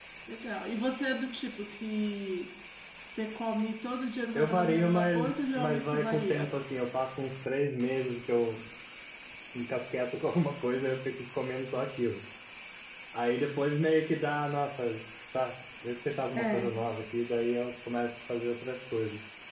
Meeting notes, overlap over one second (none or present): present